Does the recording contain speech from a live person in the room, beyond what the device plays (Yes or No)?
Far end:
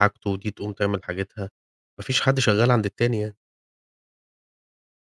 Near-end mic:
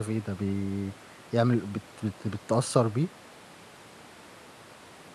Yes